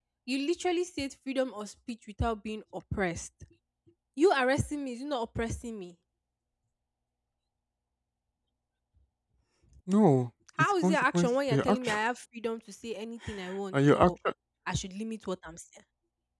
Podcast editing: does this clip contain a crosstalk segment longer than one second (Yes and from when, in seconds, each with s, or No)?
Yes, from 10.6 s